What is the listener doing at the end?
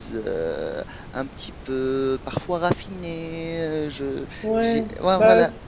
taking over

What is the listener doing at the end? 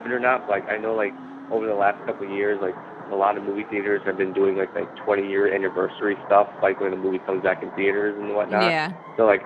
listening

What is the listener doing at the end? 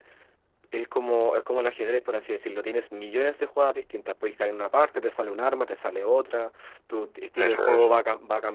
listening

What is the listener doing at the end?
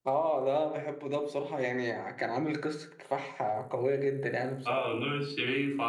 taking over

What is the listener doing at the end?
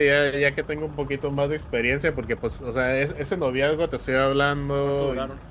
listening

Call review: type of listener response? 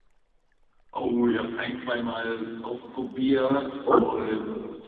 listening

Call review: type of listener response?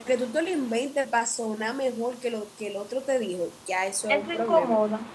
taking over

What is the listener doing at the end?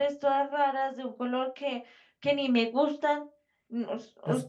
taking over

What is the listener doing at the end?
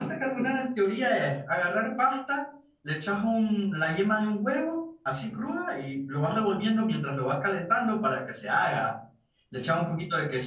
listening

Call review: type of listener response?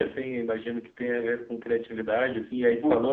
listening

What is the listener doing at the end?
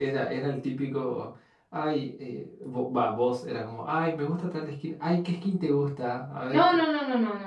taking over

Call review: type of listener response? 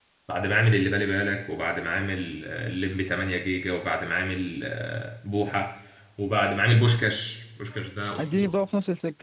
taking over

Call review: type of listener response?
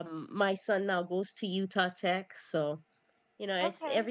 listening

